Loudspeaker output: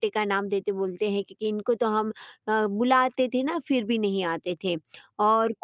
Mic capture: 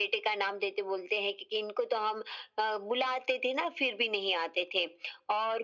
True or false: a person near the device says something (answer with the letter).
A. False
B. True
A